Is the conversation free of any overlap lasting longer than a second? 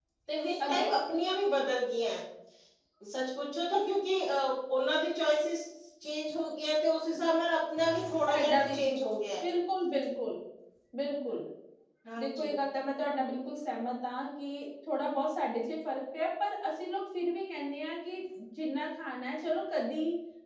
Yes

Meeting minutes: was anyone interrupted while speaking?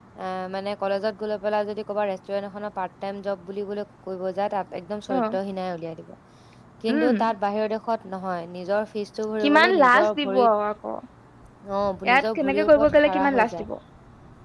Yes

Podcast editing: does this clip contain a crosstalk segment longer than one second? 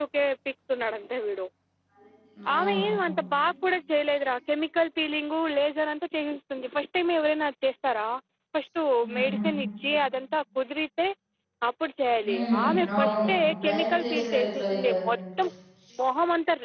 Yes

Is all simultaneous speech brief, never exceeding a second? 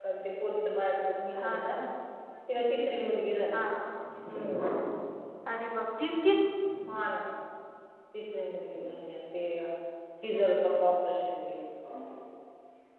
Yes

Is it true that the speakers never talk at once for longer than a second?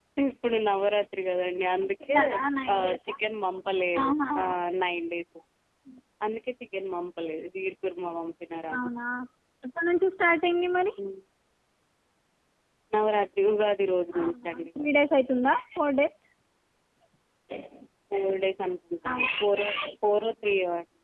Yes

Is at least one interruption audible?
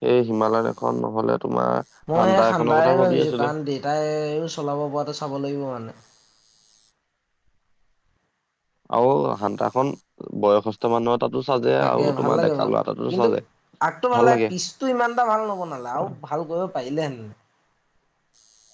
Yes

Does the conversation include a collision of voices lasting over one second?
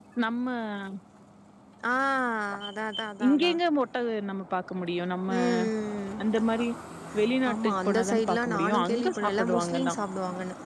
Yes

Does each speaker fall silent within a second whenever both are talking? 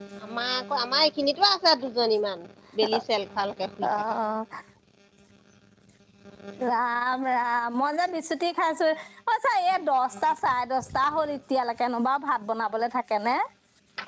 Yes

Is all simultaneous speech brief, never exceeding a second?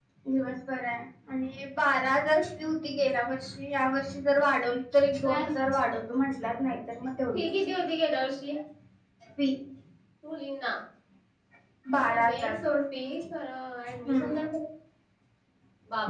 Yes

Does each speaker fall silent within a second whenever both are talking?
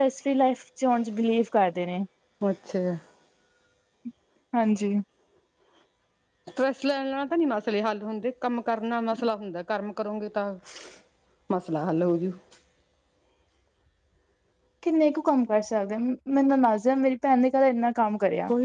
Yes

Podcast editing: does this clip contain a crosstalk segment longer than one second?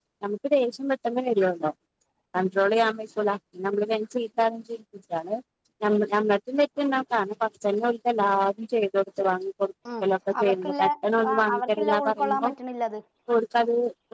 Yes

